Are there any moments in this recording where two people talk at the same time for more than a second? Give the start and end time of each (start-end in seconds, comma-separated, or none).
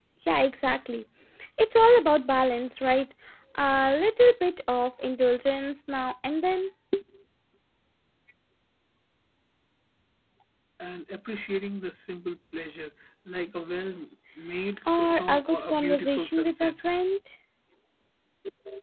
14.9-16.7